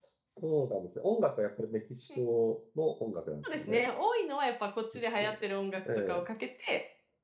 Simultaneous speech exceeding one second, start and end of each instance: none

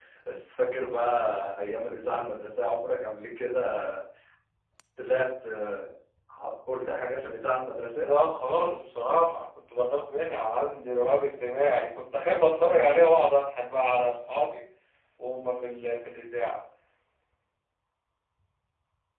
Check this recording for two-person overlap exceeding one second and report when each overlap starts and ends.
none

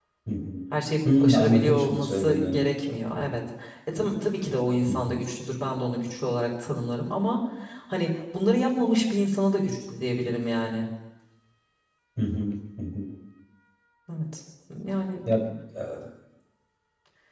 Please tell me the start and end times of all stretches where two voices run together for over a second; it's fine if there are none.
1.0-2.6

